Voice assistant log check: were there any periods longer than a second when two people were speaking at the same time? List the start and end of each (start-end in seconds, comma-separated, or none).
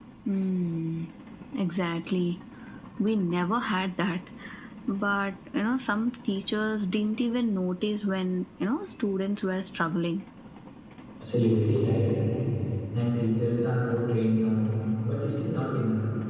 none